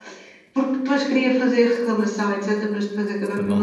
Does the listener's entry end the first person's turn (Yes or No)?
No